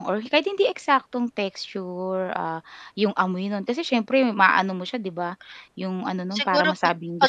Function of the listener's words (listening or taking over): taking over